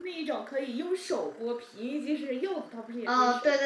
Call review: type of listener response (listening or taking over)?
taking over